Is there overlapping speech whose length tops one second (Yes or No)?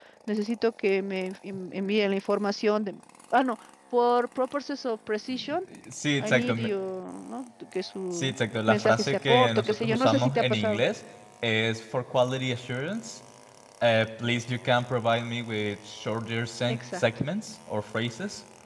Yes